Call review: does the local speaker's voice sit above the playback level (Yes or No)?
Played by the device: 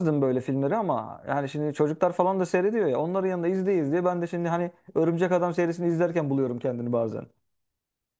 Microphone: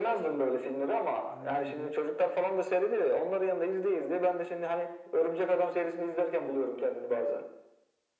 No